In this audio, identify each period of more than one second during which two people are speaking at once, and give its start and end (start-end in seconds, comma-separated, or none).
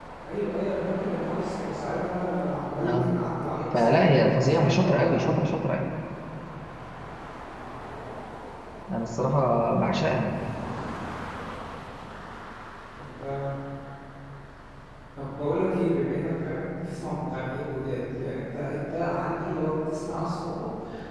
3.8-5.4